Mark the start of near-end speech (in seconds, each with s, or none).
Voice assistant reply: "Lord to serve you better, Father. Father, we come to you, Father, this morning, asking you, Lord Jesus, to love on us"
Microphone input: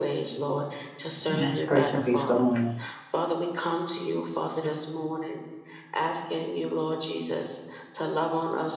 1.3 s